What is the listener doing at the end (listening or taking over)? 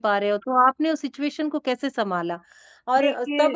listening